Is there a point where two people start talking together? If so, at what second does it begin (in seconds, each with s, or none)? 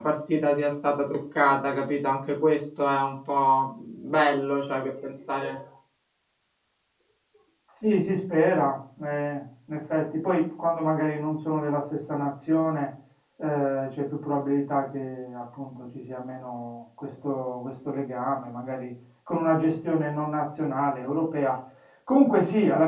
none